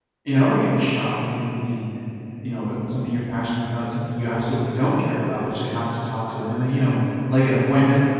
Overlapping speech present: No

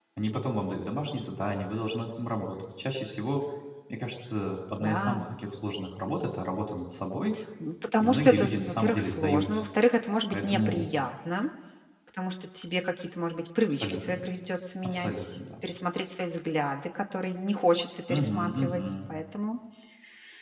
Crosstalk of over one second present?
Yes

